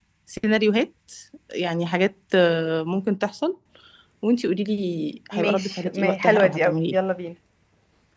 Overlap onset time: 5 s

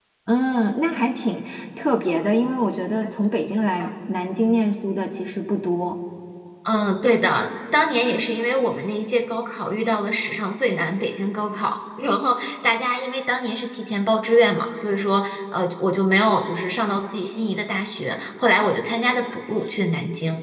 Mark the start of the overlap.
none

